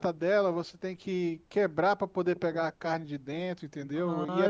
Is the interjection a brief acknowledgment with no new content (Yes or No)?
No